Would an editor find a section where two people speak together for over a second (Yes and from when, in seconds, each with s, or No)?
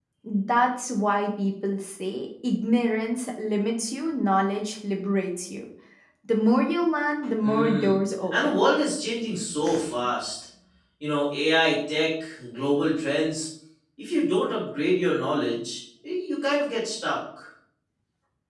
No